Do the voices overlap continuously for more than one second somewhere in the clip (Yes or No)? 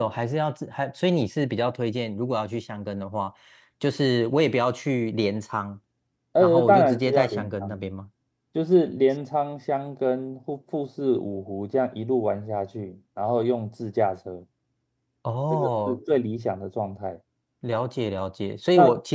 Yes